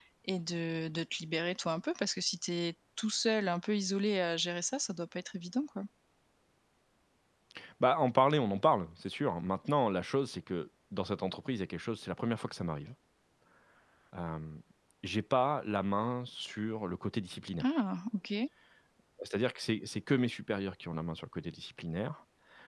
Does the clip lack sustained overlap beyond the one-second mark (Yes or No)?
Yes